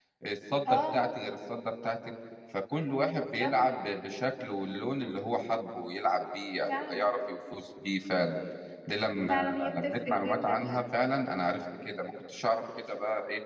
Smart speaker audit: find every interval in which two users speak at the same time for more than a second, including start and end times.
9.3-10.8

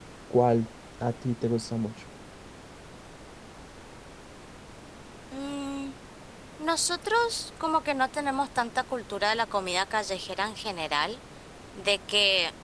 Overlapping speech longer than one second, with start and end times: none

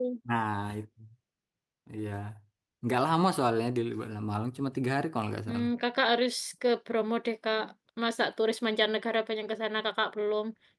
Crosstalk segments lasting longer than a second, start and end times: none

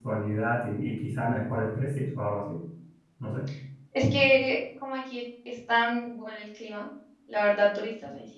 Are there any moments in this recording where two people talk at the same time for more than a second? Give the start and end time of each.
none

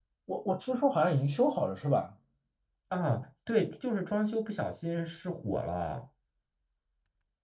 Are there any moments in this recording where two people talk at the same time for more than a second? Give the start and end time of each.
none

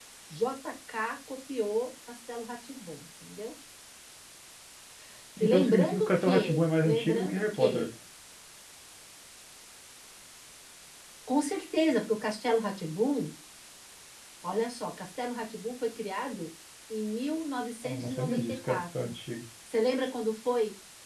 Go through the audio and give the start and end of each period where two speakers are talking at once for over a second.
5.4-7.9, 17.8-19.1

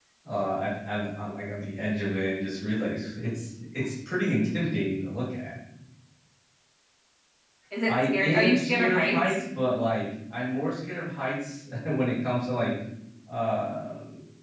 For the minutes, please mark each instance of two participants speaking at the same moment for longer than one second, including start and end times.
7.9-9.4

